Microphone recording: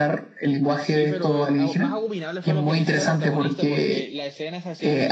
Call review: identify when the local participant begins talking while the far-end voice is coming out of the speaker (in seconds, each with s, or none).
0.8 s